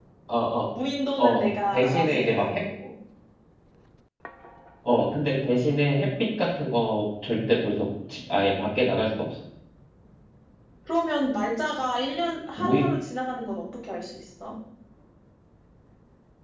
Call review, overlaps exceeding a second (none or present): present